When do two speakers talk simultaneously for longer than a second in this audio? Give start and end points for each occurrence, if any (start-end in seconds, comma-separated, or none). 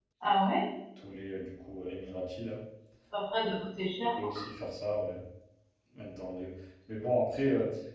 none